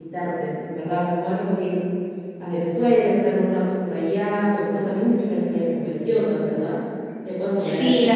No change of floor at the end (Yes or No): No